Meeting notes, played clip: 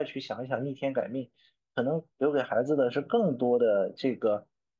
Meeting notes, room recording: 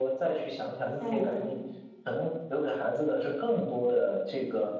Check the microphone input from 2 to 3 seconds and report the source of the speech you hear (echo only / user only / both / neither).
echo only